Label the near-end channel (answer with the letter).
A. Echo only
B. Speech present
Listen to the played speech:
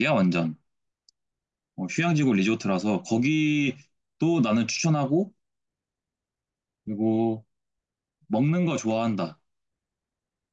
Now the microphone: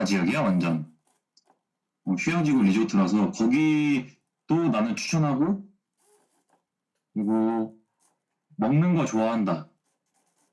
A